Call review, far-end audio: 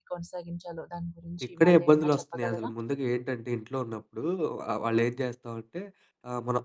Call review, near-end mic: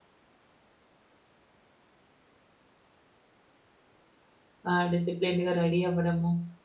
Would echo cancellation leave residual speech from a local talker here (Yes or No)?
Yes